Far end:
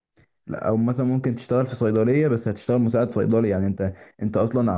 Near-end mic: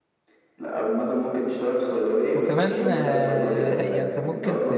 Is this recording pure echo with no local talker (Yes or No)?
No